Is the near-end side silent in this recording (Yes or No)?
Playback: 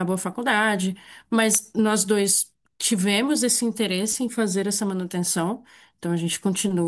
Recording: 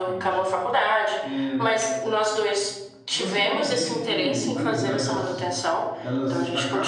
No